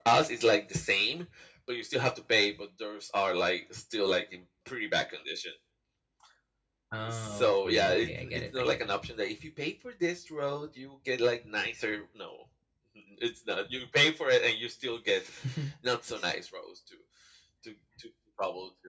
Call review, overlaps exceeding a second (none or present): present